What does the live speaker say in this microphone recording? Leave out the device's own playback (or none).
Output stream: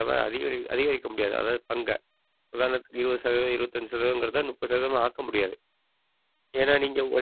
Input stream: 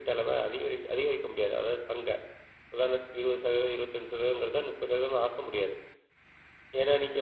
none